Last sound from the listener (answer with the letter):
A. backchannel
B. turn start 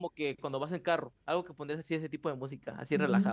B